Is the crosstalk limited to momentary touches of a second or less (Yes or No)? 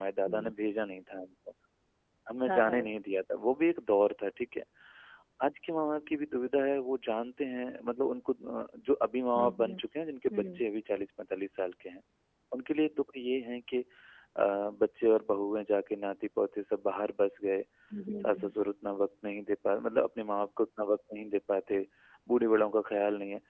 Yes